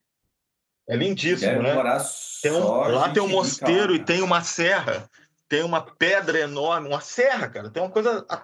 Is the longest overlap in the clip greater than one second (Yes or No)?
Yes